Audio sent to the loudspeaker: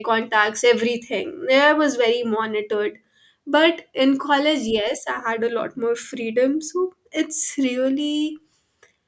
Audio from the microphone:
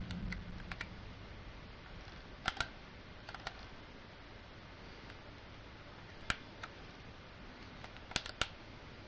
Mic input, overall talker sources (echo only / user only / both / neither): neither